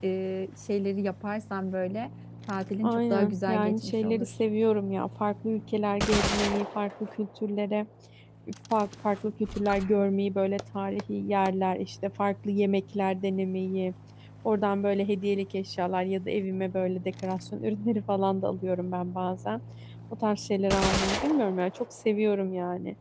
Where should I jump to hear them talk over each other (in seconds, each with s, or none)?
2.8 s